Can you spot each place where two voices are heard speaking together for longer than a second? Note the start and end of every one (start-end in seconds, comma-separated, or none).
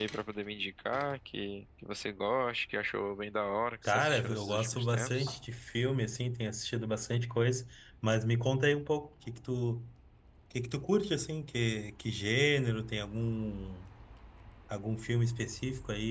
3.8-5.4